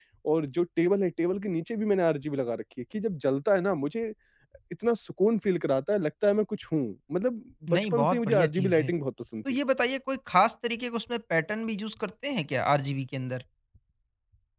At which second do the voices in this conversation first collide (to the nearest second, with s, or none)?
8 s